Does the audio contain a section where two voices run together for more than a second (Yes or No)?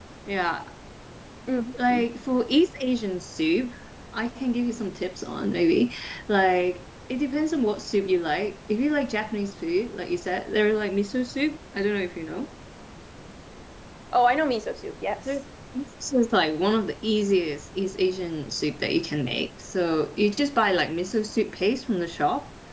No